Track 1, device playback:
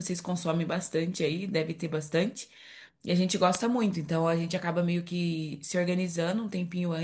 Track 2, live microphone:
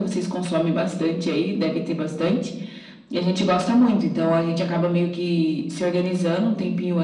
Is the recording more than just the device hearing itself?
No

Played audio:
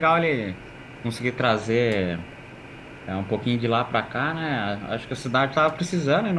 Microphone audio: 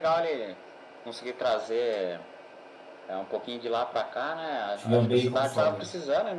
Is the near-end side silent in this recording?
No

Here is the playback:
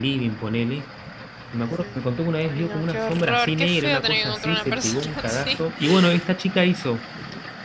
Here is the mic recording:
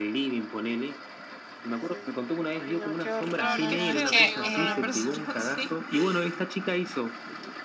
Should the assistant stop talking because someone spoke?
Yes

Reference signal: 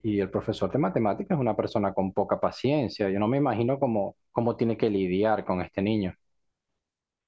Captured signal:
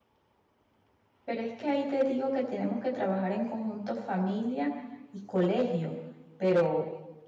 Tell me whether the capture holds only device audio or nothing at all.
No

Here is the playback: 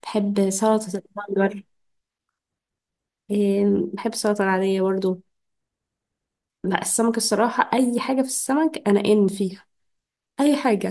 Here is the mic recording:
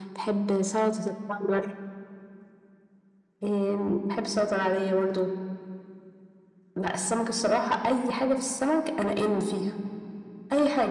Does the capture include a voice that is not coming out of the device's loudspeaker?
No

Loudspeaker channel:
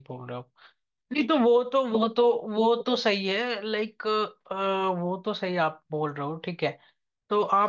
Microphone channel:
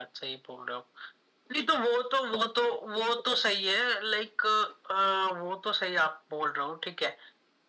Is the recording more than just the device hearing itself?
No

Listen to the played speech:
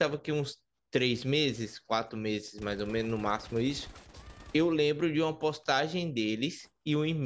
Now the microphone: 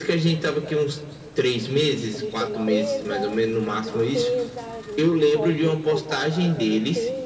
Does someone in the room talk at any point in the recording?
Yes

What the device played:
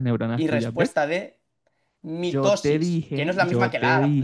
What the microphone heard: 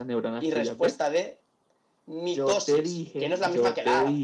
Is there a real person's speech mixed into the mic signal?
No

